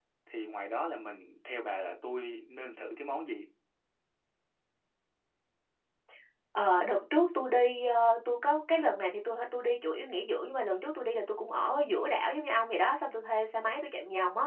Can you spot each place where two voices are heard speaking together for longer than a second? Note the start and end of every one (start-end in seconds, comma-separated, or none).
none